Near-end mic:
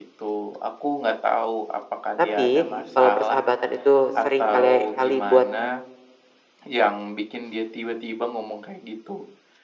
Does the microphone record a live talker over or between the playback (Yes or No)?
Yes